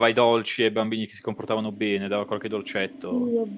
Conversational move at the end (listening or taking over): taking over